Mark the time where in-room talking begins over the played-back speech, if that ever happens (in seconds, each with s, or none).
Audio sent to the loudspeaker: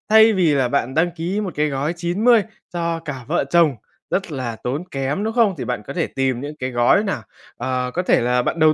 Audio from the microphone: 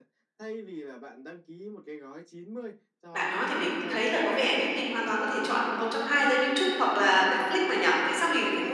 3.1 s